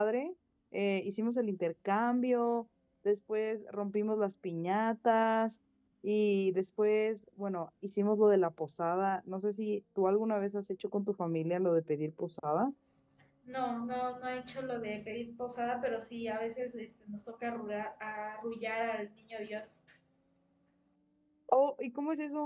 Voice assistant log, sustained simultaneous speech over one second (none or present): none